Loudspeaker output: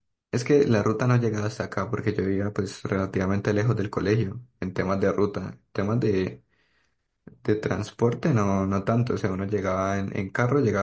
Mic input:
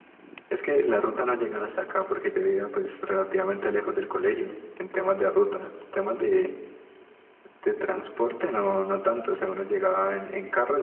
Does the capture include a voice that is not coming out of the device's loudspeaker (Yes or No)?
No